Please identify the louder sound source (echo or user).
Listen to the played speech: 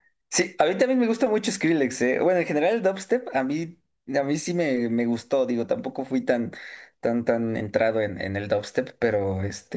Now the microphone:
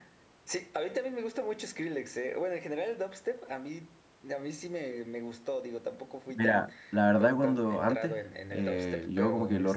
user